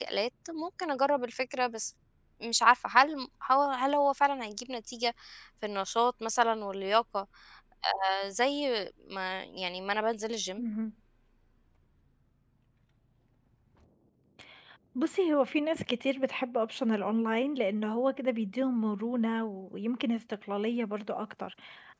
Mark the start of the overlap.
none

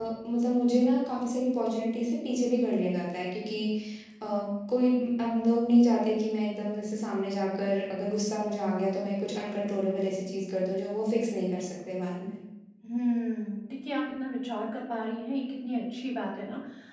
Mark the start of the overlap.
none

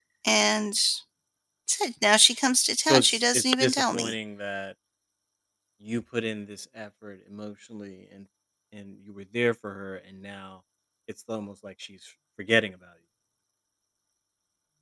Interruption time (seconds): 2.8 s

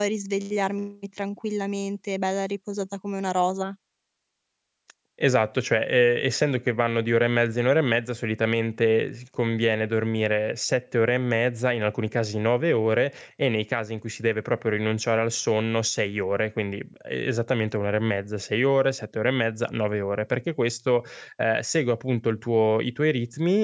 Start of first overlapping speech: none

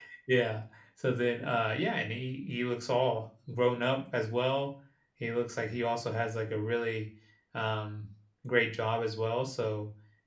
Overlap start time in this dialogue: none

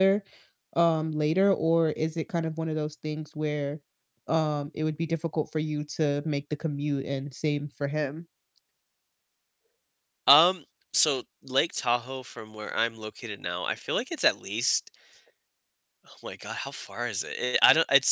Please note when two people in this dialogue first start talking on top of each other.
none

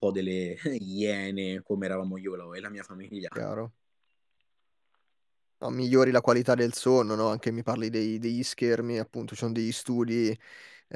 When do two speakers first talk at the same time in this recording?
none

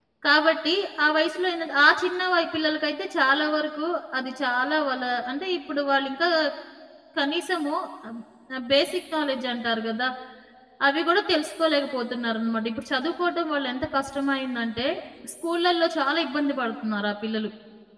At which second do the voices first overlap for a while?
none

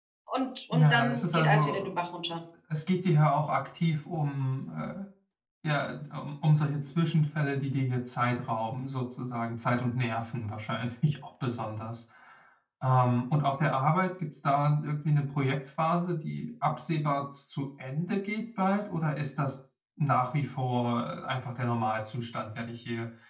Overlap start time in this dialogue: 0.7 s

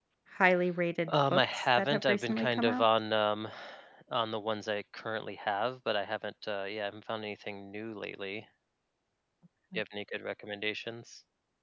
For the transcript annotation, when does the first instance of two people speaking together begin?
1.1 s

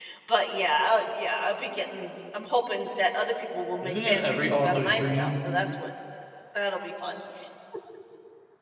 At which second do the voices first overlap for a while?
3.8 s

